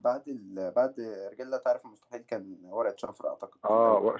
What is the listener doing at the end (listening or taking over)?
taking over